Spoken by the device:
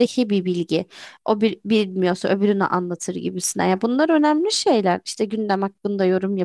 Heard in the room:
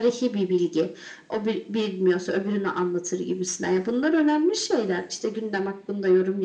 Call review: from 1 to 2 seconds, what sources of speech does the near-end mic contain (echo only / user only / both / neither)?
echo only